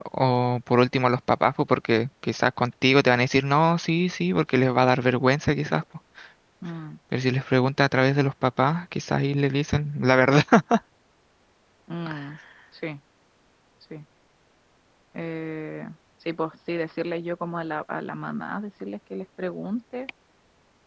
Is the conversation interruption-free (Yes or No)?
Yes